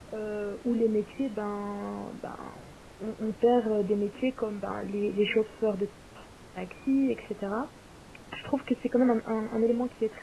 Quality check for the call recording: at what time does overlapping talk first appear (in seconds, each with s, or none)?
none